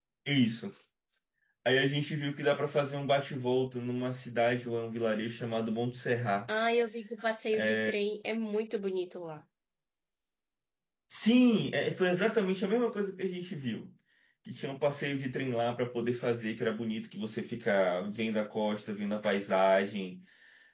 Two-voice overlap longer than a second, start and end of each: none

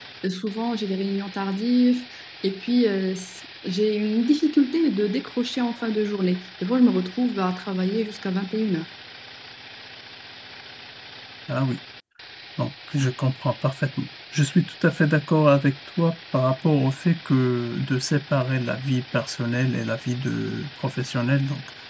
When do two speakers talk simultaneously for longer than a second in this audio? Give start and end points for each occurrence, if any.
none

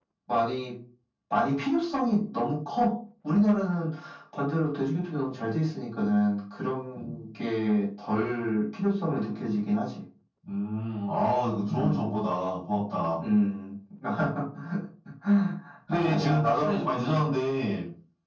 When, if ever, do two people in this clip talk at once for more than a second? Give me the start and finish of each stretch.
15.9-17.2

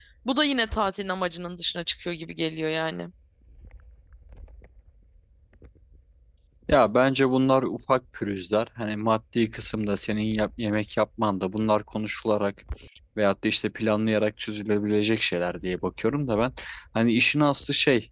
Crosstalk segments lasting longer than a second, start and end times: none

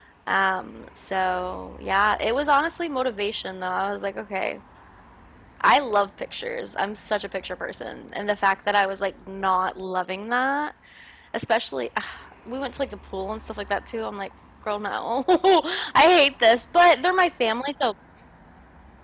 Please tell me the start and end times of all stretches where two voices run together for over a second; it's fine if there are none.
none

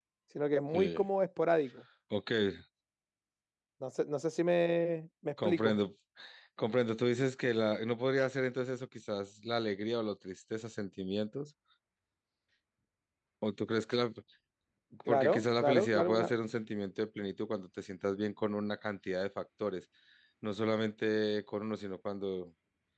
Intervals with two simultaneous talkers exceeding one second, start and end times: 15.1-16.3

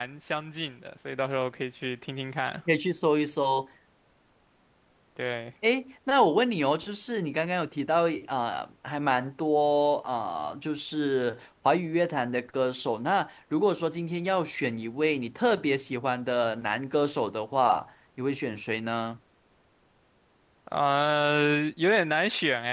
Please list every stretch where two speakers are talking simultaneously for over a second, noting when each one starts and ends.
none

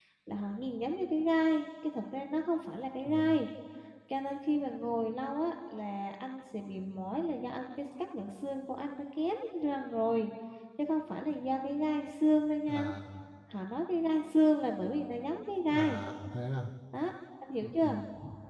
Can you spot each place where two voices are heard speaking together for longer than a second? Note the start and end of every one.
none

